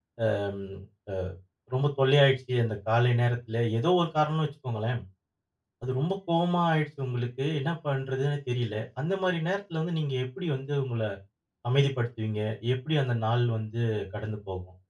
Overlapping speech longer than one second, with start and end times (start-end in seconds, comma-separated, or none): none